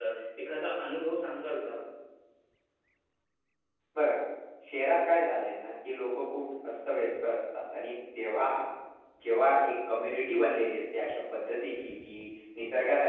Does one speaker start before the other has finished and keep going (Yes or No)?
No